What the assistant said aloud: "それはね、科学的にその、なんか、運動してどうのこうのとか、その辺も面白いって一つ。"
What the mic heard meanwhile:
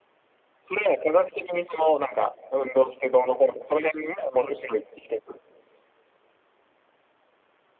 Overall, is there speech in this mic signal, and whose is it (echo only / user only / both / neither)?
echo only